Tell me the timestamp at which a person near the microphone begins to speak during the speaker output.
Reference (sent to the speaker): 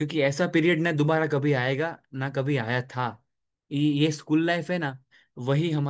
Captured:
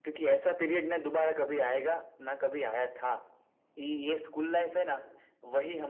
none

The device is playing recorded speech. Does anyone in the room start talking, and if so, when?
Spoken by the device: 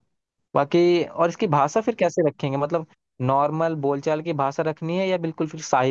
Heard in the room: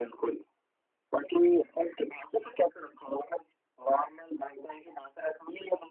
none

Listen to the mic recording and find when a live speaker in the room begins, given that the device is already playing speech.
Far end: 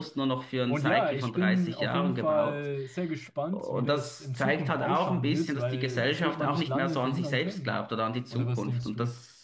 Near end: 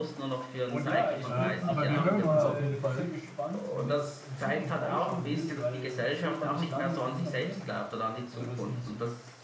1.3 s

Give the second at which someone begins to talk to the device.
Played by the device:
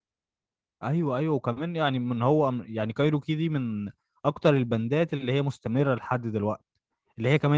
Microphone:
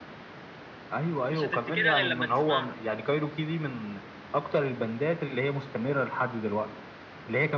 1.2 s

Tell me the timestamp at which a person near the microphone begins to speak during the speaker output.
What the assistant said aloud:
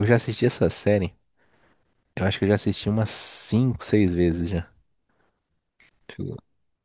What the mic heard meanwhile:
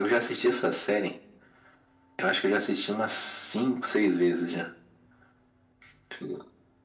none

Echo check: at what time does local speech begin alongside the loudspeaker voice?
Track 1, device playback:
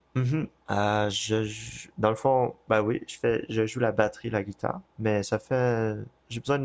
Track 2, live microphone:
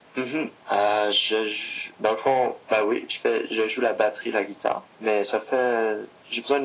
none

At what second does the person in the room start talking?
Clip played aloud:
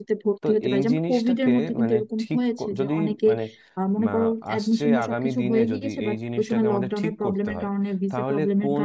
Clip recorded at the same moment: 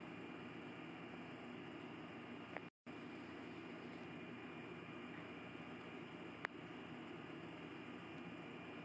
none

